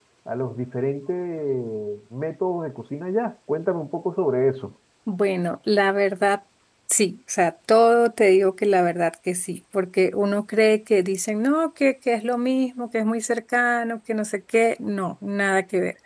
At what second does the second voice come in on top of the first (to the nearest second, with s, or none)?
none